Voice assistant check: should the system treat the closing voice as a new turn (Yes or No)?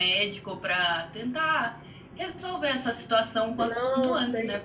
Yes